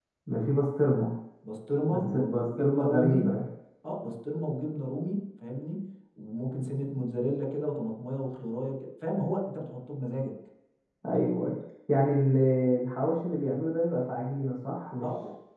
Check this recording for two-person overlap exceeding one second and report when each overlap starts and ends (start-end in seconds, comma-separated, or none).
1.9-3.3